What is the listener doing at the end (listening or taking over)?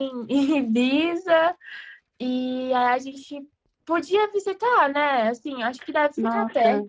taking over